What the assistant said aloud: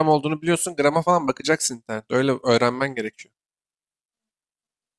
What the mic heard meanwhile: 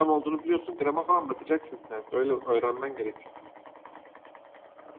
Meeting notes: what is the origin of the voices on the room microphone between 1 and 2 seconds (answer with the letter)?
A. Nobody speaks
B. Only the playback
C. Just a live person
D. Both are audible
B